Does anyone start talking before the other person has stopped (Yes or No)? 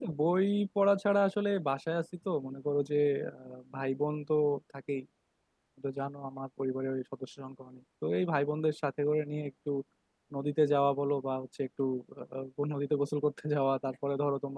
No